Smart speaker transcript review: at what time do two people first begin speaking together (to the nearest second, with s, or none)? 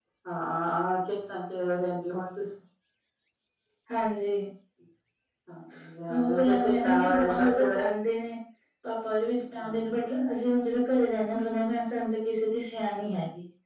6 s